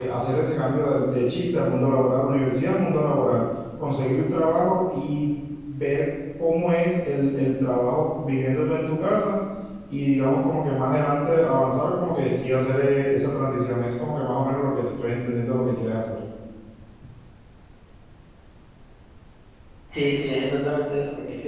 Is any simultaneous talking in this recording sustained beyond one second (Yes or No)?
No